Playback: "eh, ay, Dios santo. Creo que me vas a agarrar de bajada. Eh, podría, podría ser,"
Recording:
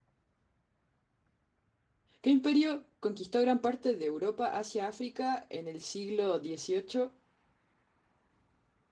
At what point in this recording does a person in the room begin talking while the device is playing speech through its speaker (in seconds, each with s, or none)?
2.2 s